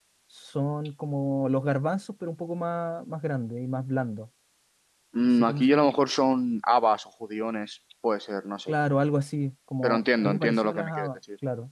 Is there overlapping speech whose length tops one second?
Yes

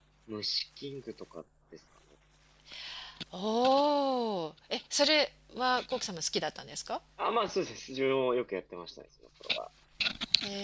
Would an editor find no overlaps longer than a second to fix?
Yes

